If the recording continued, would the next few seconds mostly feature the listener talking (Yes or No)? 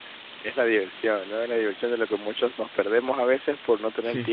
No